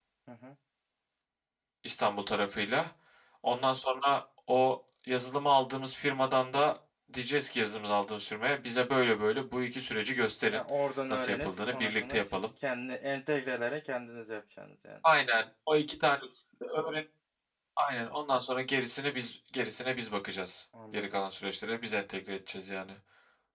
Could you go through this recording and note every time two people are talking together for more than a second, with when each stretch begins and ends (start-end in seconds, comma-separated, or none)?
11.1-12.5